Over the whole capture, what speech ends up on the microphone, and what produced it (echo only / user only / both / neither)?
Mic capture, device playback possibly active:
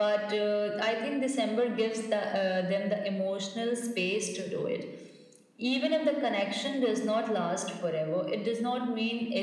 echo only